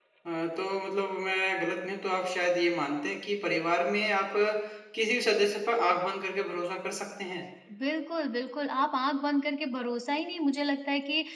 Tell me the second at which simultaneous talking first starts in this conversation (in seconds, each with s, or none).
none